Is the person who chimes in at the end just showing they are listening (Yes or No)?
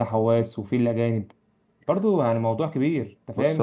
No